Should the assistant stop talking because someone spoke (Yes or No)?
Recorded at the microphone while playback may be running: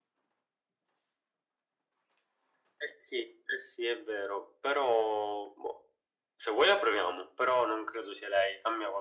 No